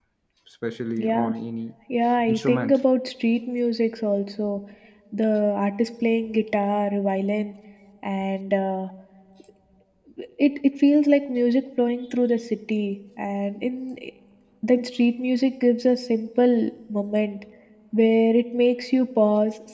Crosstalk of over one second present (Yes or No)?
No